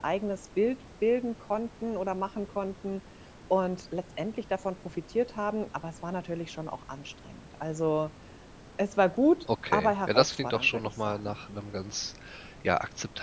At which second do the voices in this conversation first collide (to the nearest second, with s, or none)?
10 s